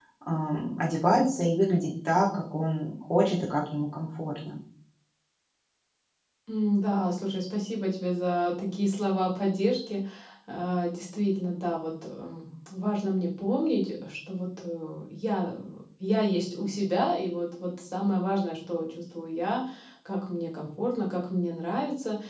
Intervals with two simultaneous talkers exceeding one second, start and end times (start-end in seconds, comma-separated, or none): none